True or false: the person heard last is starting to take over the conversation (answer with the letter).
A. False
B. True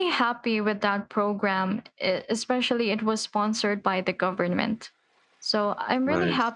A